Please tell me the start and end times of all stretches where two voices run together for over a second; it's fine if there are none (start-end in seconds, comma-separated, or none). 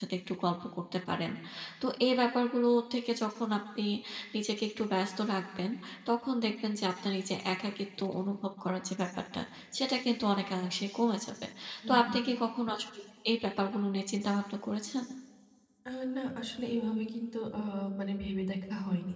none